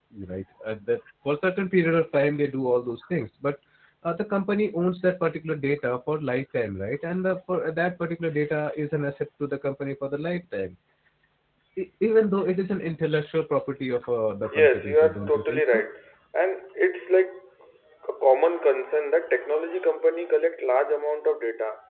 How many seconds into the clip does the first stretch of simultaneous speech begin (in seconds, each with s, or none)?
14.4 s